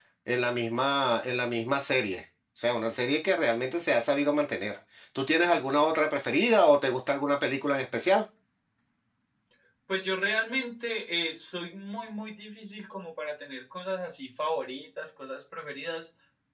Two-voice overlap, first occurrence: none

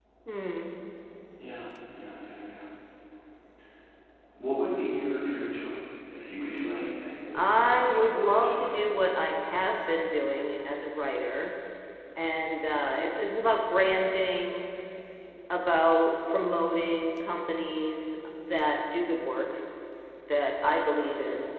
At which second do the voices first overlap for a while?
7.3 s

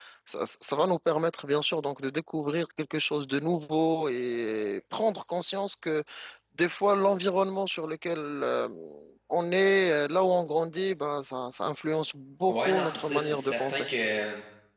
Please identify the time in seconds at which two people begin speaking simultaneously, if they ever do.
12.5 s

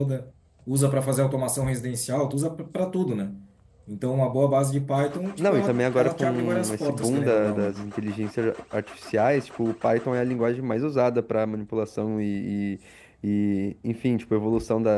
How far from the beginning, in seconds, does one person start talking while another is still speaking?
5.4 s

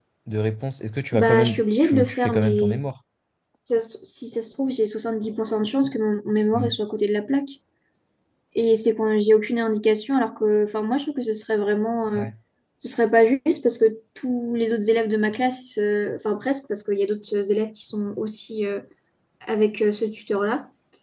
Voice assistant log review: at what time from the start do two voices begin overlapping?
1.1 s

